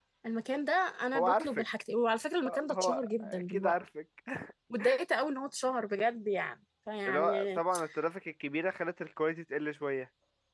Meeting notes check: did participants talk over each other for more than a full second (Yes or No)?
Yes